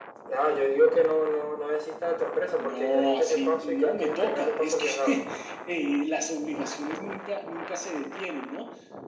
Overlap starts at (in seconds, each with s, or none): 2.6 s